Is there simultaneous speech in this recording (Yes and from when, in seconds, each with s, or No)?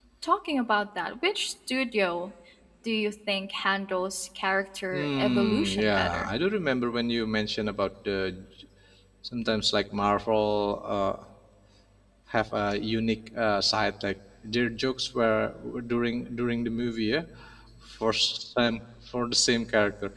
Yes, from 4.9 s